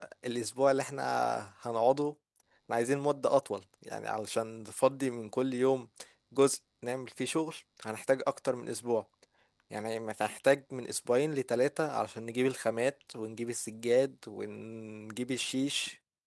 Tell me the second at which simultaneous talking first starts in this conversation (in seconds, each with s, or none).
none